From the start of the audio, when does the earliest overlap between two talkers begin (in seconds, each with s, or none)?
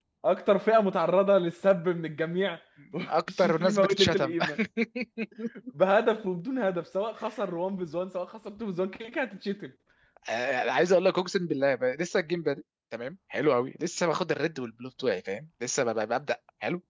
3.1 s